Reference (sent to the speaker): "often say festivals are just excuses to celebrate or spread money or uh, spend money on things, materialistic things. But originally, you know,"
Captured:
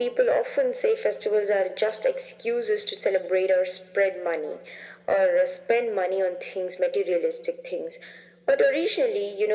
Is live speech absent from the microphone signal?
Yes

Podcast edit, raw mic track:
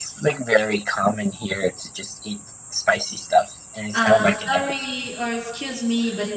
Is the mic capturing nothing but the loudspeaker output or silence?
No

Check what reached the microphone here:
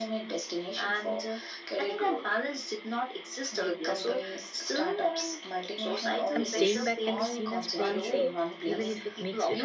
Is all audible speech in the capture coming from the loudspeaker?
No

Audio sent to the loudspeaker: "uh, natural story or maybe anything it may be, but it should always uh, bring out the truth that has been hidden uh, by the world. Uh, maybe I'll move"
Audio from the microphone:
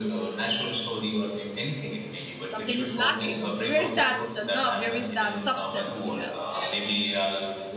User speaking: Yes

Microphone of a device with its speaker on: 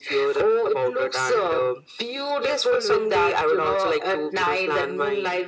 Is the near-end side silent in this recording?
Yes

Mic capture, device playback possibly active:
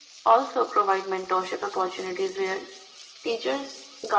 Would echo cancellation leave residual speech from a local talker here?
No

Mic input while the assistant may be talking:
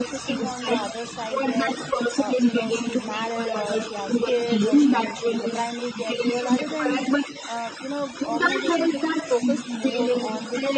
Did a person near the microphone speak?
Yes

